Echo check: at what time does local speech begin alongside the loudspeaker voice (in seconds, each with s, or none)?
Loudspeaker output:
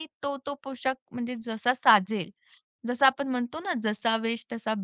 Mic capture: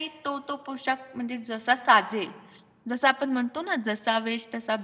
none